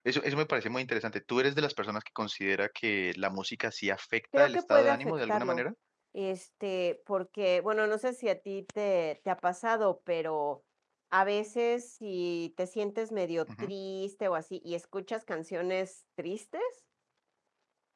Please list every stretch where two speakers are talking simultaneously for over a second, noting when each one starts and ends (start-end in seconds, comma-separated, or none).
4.4-5.6